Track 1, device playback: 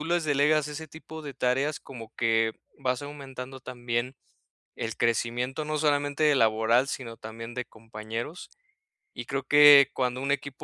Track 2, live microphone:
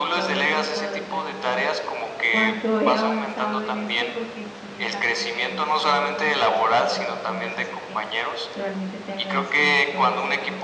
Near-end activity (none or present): present